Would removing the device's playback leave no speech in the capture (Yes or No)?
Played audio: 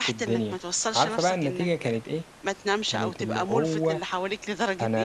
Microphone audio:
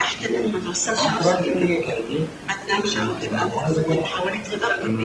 Yes